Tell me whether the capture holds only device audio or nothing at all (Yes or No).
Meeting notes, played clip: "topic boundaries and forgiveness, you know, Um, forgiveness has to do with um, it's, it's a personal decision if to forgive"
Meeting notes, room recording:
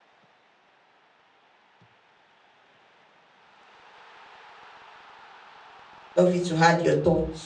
No